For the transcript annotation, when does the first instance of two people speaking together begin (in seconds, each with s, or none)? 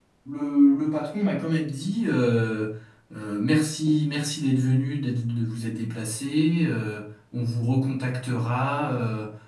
none